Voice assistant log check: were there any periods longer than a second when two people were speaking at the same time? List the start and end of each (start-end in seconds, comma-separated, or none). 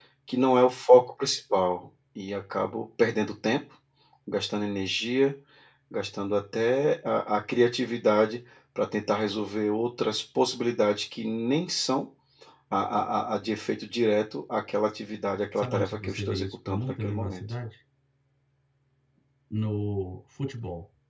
15.6-17.4